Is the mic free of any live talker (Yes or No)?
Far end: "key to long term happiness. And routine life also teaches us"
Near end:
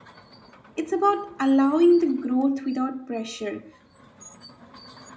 No